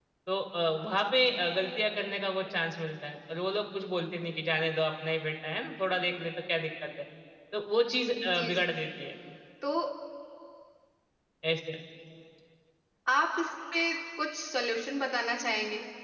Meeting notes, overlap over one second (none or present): none